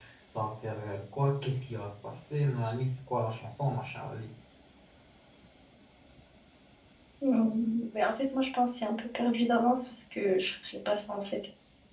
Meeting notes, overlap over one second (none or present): none